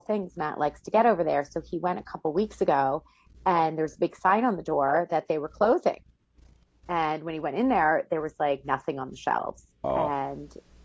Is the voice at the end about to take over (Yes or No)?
No